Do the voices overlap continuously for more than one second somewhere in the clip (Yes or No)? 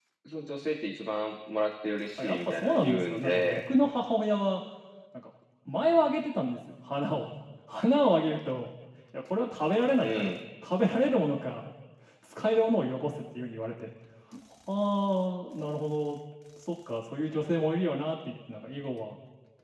Yes